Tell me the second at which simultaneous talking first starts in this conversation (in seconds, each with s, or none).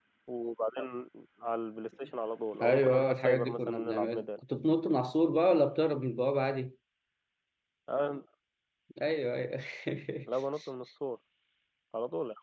2.5 s